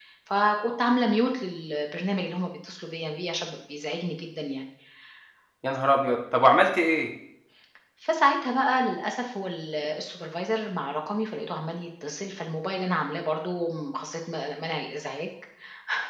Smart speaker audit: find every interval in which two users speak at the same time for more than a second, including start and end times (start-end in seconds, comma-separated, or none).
none